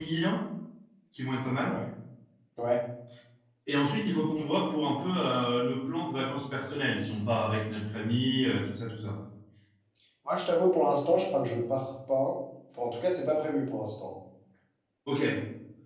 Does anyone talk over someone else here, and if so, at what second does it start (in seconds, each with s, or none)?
none